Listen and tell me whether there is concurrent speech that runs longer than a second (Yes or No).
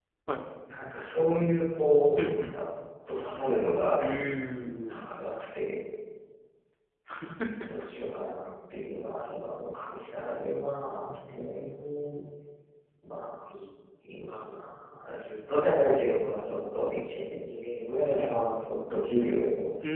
No